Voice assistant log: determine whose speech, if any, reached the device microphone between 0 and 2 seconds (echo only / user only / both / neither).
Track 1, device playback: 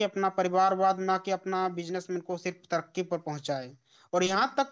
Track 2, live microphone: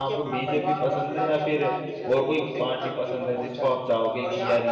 both